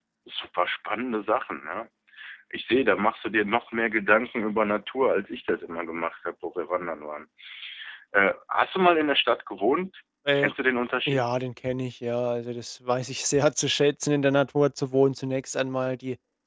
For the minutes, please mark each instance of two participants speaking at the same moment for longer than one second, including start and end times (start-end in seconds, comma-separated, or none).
none